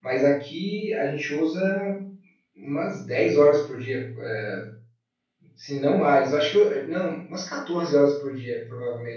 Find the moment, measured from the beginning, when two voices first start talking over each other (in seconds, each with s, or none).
none